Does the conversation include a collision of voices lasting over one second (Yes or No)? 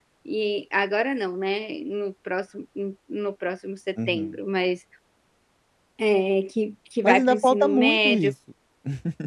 Yes